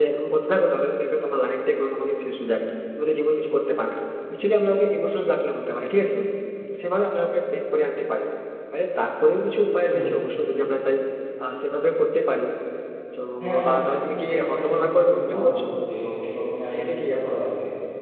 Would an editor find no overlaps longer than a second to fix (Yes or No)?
No